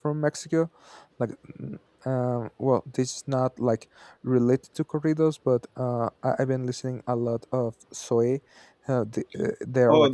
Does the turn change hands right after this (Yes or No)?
Yes